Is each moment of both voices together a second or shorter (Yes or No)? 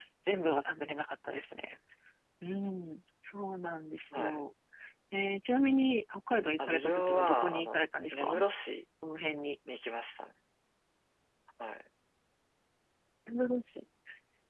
No